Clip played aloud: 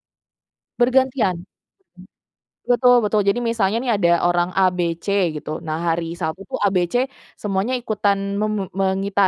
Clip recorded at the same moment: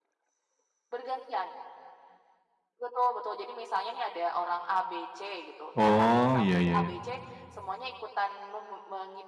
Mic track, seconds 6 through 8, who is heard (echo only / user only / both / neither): both